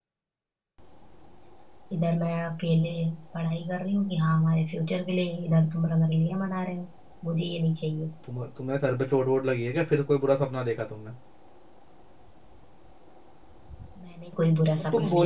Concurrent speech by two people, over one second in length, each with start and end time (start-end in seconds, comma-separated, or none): none